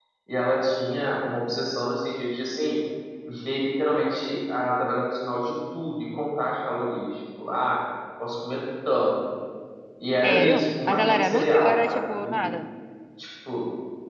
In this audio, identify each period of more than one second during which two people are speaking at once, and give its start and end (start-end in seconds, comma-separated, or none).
10.2-12.5